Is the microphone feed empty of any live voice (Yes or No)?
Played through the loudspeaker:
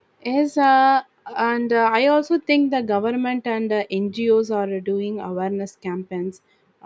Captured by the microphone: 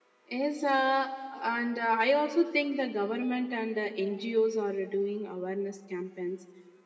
Yes